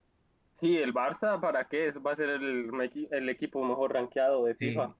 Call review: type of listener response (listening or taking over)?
taking over